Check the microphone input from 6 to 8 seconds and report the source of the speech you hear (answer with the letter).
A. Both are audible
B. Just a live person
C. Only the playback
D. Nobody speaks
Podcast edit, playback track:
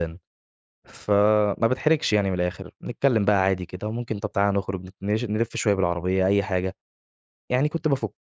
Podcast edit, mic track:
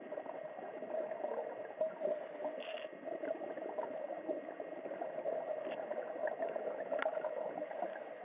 D